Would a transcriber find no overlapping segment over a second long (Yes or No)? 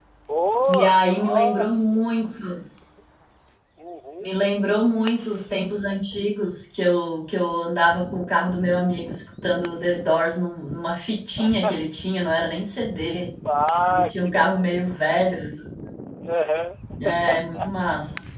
No